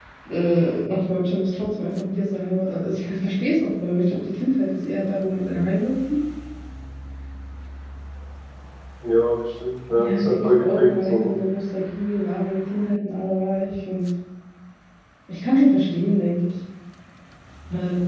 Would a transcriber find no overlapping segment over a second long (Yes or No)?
No